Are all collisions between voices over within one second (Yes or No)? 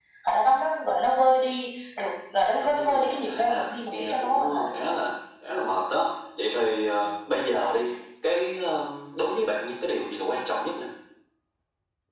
No